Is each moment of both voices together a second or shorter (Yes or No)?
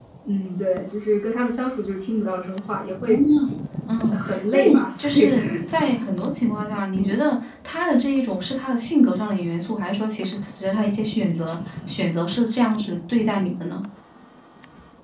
No